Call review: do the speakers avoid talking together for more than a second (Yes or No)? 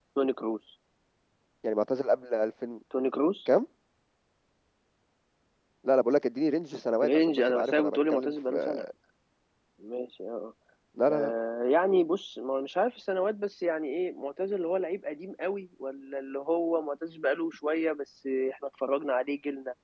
No